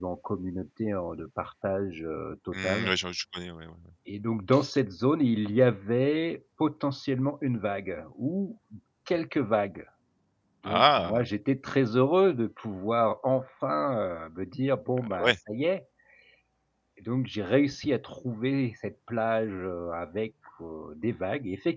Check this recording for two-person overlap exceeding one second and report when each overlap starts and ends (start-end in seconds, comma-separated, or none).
none